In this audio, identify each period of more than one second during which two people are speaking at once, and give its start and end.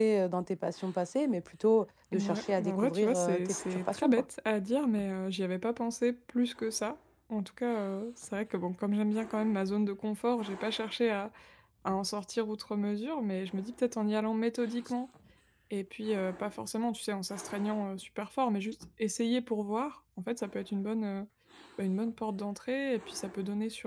2.1-4.2

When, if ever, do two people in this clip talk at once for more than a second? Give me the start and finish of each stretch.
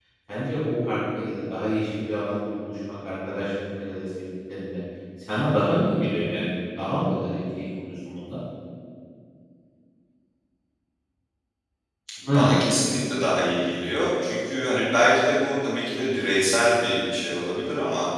none

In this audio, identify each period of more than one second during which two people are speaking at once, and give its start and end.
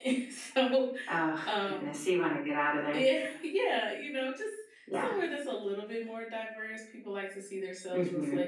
none

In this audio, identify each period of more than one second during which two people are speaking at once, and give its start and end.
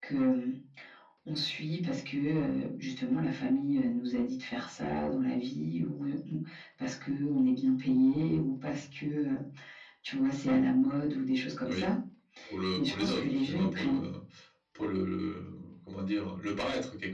12.7-14.0

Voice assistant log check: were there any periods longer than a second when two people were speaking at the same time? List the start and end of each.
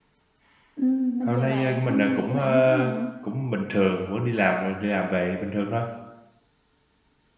1.3-3.0

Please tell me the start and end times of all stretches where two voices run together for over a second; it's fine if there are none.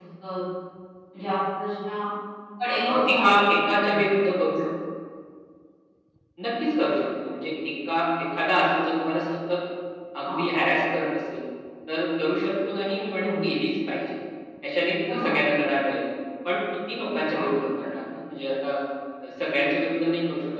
2.9-4.3

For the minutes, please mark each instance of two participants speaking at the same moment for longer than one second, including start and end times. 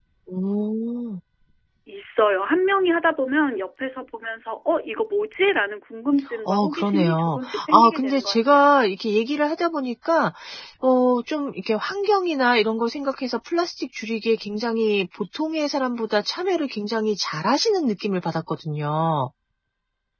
6.5-8.7

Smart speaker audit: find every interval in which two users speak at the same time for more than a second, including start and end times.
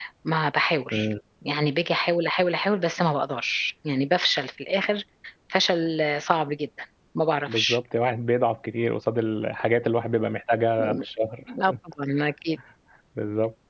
none

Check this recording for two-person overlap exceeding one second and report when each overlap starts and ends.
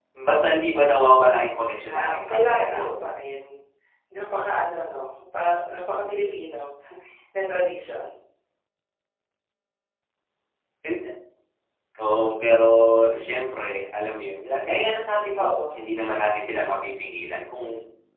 2.0-3.2

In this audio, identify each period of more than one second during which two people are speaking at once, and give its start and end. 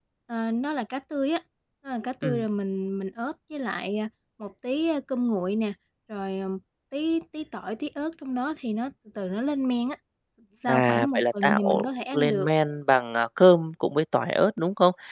10.7-12.5

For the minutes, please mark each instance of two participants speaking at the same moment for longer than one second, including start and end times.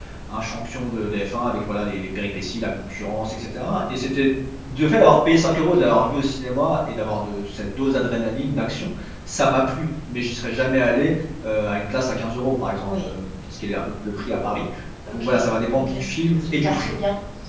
none

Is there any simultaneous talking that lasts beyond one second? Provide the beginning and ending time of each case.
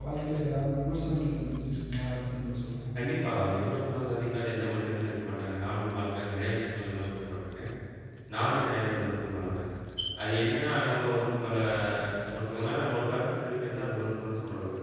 none

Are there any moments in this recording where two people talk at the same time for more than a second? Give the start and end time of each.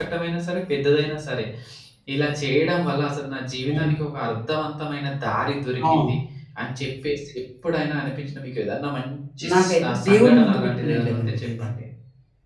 9.5-11.7

